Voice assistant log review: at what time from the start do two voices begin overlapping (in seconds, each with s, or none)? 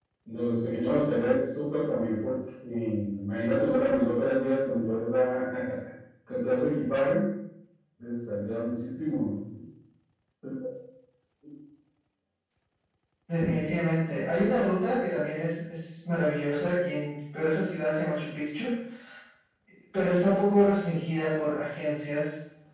none